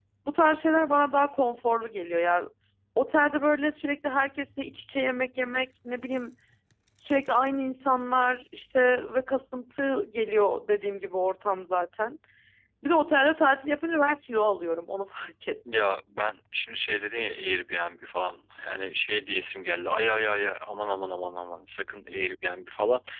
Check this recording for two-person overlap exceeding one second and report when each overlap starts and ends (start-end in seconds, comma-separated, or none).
none